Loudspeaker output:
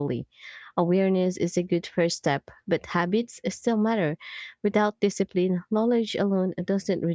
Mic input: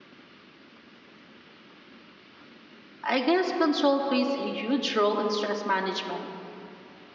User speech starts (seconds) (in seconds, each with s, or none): 3.1 s